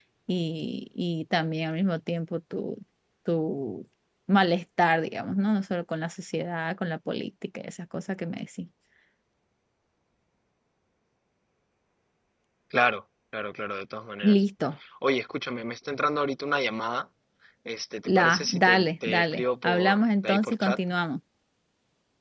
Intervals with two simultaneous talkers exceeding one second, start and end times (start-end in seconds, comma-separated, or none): 18.1-20.8